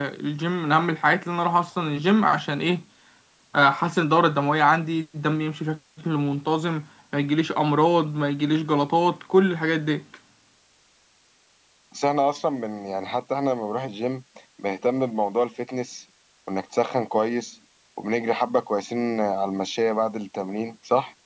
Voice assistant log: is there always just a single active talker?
Yes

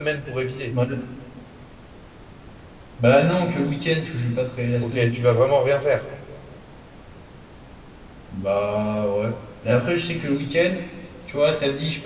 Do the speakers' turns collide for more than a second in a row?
No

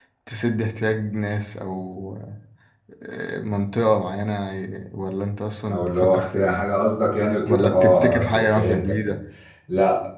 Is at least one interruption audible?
Yes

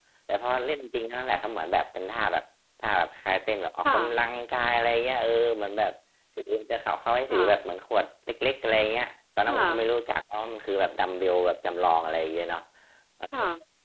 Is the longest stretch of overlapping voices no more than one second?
Yes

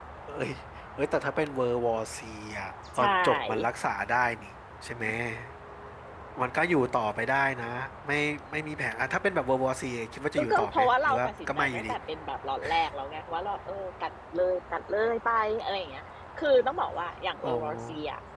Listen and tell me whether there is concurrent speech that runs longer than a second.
Yes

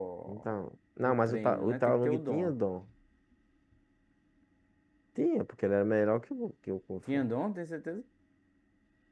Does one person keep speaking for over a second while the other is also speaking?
Yes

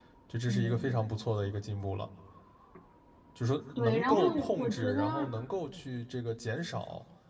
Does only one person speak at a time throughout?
No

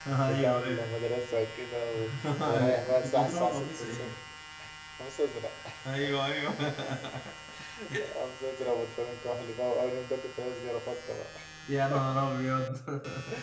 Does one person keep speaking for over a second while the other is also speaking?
Yes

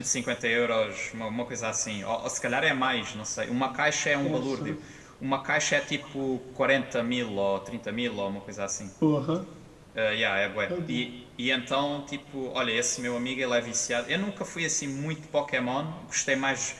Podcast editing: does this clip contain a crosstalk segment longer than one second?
No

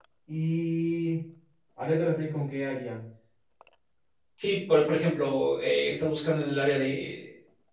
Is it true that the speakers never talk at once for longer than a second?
Yes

